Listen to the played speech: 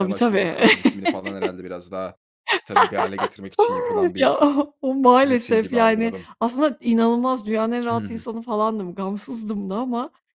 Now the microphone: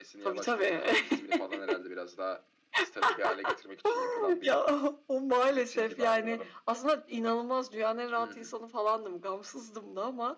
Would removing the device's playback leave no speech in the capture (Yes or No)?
Yes